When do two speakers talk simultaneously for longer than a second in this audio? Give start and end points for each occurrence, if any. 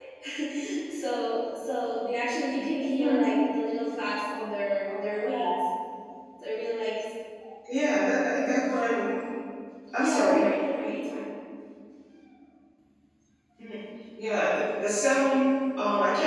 none

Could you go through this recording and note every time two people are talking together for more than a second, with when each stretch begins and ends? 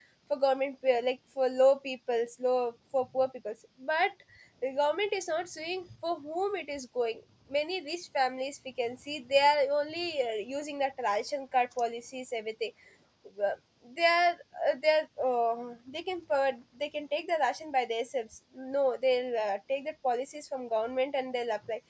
none

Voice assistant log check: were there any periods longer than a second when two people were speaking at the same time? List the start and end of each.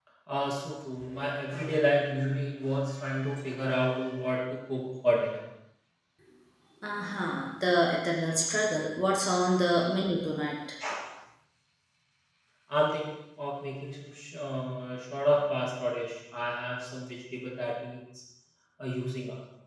none

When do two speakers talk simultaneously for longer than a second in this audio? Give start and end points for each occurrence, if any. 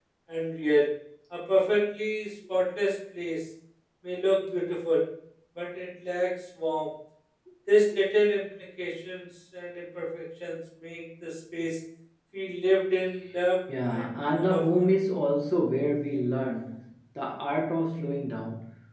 13.7-14.9

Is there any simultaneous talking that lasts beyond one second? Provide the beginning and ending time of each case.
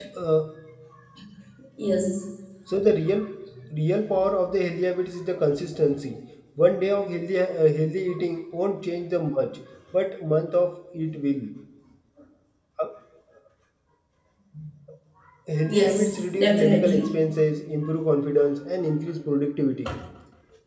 15.7-17.0

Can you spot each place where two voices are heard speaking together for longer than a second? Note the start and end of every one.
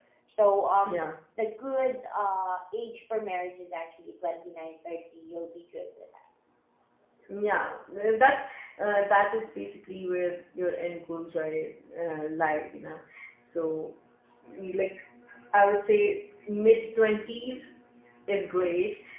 none

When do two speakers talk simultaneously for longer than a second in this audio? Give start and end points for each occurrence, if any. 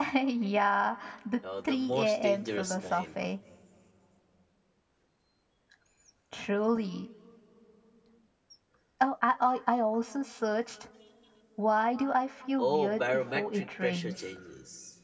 1.6-3.0, 12.6-14.1

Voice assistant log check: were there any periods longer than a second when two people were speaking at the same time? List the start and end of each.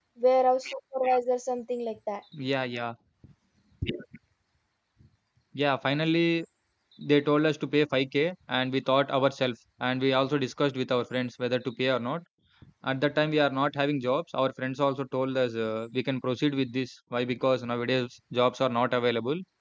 none

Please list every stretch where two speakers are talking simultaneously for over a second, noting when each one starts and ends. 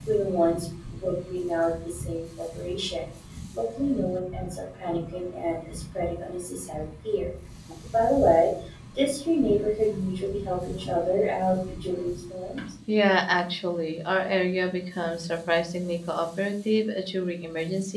none

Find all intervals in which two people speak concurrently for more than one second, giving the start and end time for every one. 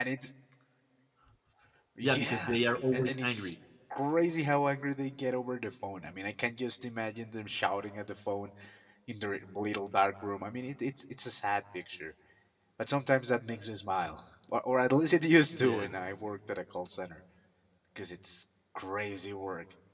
2.0-3.5

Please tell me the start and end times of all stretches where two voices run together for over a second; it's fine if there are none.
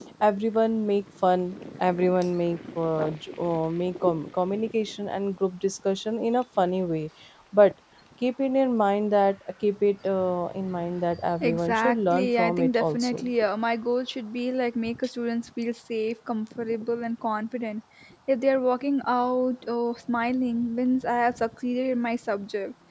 11.4-13.2

